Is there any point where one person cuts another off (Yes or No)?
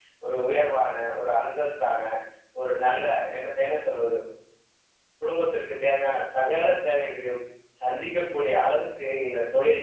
No